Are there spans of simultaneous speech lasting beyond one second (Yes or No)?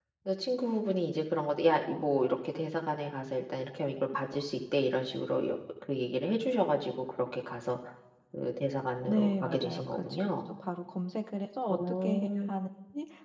Yes